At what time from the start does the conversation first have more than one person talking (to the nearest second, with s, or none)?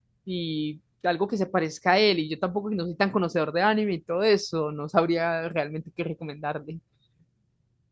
none